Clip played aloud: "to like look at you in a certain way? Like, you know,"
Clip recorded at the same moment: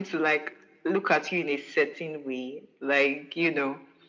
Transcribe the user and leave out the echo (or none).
none